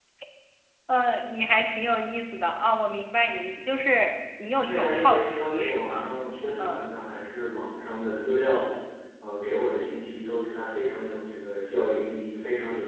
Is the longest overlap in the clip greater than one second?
Yes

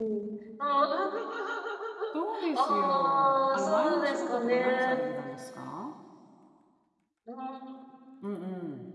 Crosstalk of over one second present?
Yes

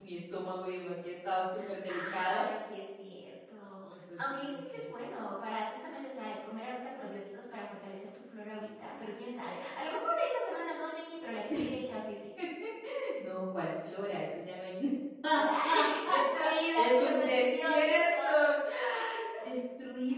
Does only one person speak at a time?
No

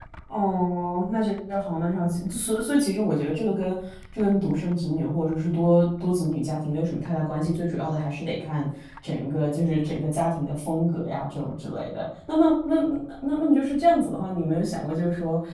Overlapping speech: No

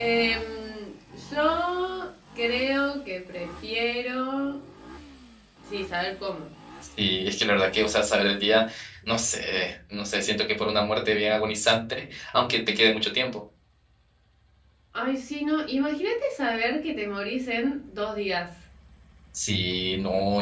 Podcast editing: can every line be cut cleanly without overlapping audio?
Yes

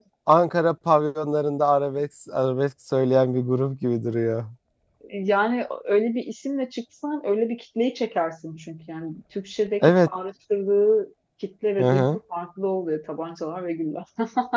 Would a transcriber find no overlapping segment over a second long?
Yes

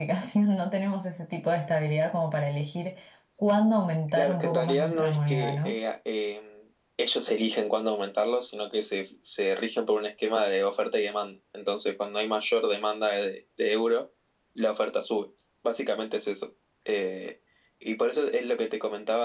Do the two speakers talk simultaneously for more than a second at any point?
Yes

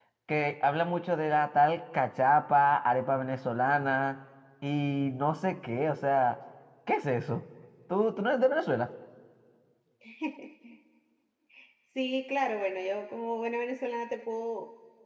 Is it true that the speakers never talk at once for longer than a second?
Yes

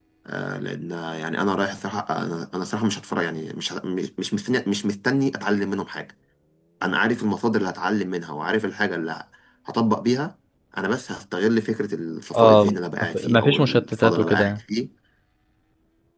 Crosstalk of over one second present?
Yes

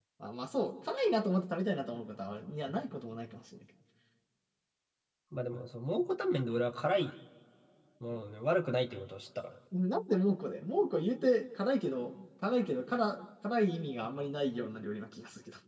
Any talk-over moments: No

